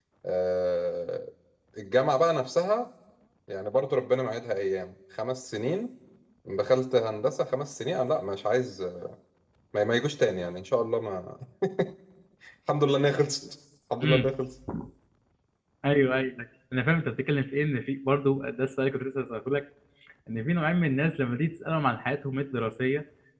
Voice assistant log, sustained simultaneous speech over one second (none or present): none